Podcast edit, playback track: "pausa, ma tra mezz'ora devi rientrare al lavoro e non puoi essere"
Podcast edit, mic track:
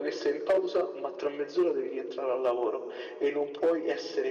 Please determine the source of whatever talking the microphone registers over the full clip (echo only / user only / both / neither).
echo only